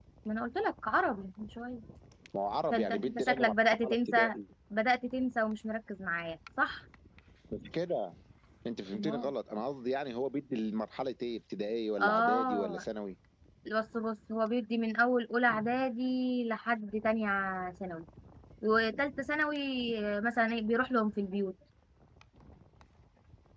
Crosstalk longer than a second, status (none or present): present